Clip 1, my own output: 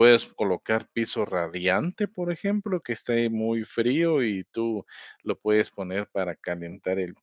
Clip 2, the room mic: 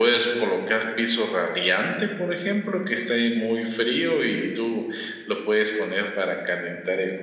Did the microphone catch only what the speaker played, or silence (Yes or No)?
Yes